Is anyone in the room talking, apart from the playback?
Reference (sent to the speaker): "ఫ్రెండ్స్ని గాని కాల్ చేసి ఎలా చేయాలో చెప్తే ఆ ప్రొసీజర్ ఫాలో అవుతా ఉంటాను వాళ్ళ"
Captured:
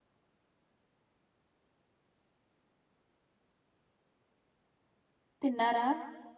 Yes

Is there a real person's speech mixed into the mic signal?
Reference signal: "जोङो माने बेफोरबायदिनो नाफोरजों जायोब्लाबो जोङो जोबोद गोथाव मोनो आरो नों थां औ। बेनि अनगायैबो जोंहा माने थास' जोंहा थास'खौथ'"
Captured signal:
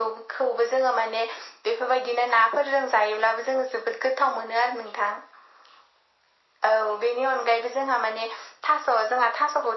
No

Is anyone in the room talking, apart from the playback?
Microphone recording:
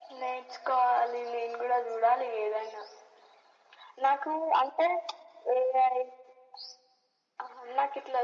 No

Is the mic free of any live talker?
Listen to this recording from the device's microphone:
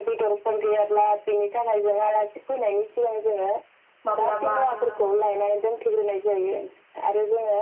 No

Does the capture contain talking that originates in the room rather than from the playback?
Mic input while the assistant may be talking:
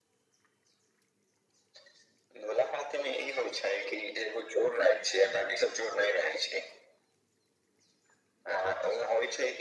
No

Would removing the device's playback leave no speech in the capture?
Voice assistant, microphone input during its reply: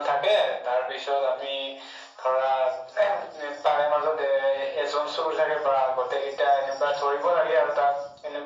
Yes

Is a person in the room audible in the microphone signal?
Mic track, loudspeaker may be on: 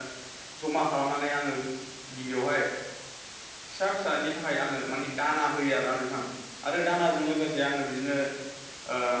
Yes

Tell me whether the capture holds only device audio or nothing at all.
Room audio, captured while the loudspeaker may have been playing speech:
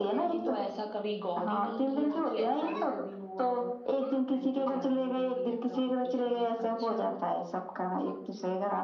Yes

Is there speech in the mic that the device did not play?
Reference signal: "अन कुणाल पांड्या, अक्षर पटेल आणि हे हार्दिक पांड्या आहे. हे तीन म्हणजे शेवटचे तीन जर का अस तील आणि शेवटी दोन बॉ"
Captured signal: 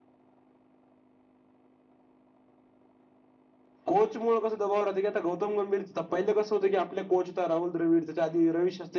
Yes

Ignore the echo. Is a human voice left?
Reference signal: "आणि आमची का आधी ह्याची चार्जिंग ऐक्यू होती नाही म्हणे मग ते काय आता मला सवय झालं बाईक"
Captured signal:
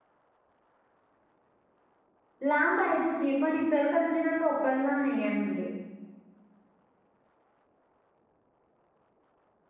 Yes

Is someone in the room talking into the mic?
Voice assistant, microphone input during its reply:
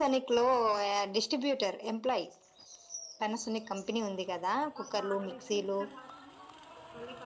Yes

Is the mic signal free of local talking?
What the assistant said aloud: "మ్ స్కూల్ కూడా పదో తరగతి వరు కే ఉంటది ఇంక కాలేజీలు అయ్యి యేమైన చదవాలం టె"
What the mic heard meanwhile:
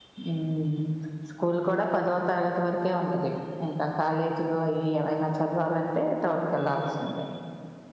Yes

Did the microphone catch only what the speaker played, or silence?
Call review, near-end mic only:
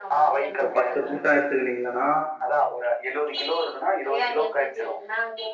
No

